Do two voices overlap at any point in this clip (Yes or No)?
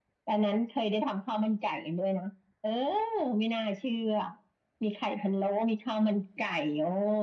No